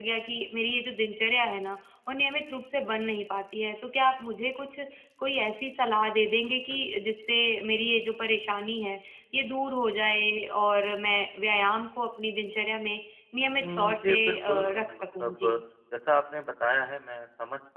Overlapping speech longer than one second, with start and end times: 13.6-15.4

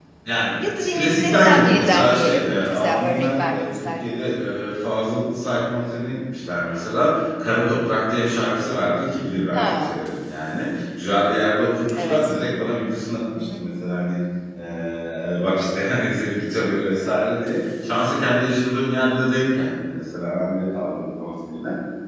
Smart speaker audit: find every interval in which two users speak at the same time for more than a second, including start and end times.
0.8-3.9

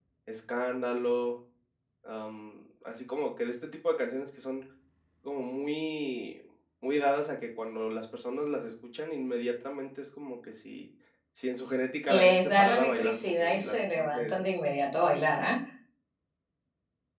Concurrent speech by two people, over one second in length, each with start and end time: 12.1-14.2

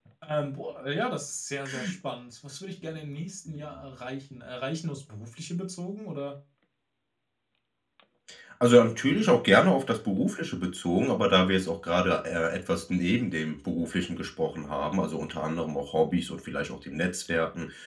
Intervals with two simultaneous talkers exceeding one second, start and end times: none

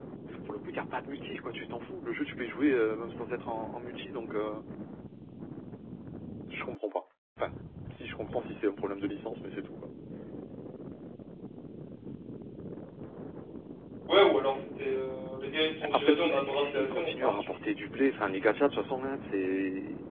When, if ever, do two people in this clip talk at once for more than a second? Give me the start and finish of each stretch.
15.9-17.6

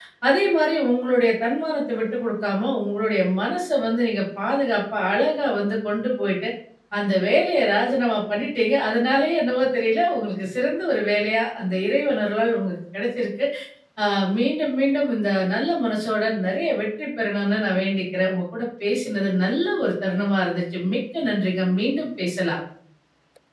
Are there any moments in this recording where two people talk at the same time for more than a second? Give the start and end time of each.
none

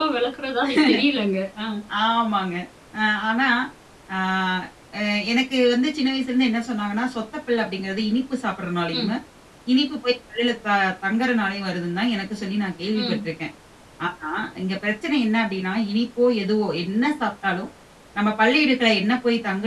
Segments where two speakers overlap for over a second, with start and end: none

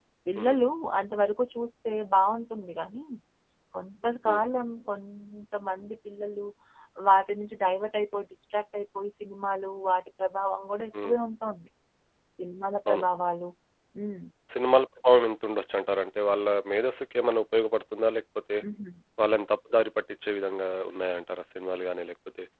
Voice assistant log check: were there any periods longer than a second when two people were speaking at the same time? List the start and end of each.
none

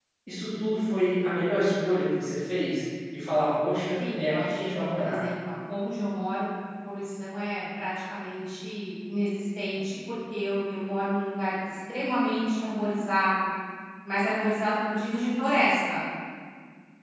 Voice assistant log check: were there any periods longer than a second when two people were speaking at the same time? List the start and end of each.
4.0-5.2

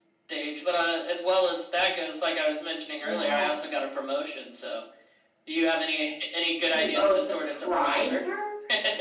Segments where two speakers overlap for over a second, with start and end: 6.7-8.2

